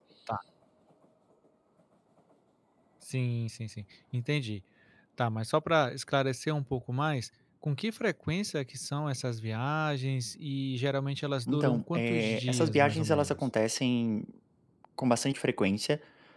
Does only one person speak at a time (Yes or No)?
No